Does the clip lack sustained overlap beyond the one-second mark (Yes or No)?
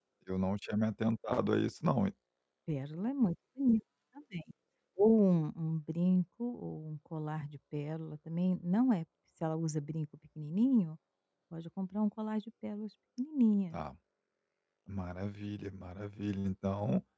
Yes